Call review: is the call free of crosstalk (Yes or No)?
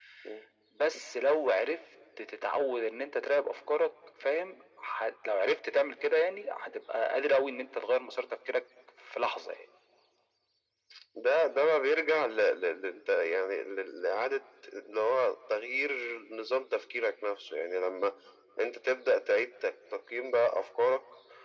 Yes